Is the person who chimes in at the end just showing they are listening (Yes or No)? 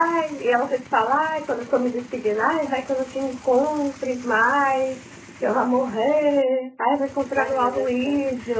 No